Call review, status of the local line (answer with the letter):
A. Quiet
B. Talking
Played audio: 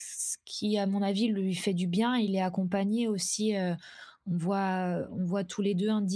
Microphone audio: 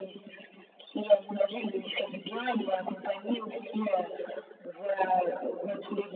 A